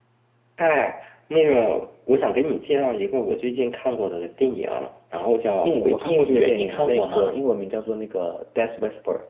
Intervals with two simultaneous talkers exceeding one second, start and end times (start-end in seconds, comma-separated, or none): 5.6-7.4